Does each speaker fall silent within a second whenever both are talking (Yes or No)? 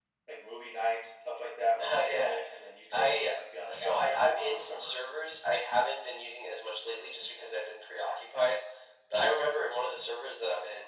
No